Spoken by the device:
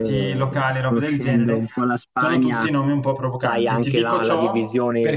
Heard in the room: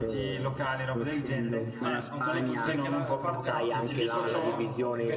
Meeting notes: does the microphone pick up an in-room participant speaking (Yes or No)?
Yes